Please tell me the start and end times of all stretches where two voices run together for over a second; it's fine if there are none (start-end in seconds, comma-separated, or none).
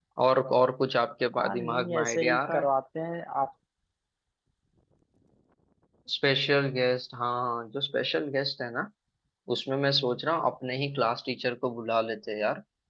1.4-2.7